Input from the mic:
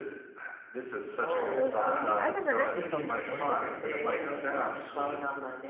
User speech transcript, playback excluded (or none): that's so sweet. I never heard this song before either.